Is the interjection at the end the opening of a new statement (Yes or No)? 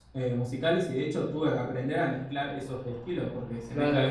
Yes